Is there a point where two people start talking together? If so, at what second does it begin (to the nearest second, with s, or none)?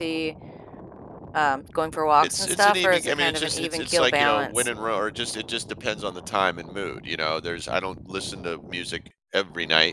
2 s